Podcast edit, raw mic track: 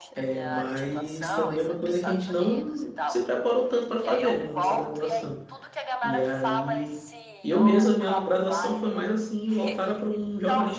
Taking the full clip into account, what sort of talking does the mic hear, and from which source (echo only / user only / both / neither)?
both